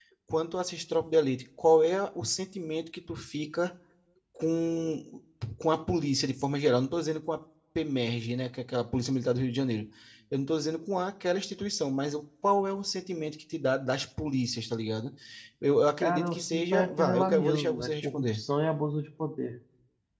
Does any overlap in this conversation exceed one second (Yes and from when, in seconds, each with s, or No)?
Yes, from 16.0 s